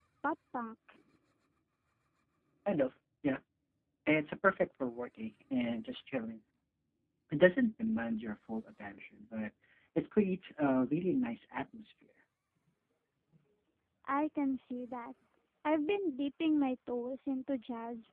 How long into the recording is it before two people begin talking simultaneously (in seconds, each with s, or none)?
none